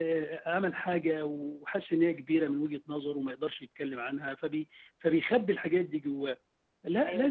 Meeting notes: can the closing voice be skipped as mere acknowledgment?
Yes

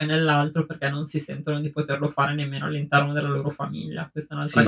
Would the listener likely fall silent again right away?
No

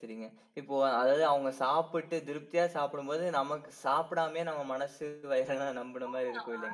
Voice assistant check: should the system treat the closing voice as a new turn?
Yes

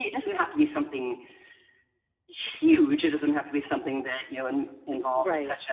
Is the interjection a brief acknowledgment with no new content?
Yes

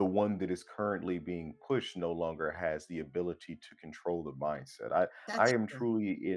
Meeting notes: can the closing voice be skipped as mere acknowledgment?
Yes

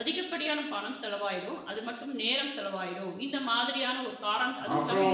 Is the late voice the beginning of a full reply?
Yes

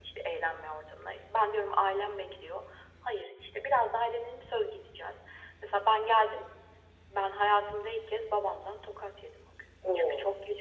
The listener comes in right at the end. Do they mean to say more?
No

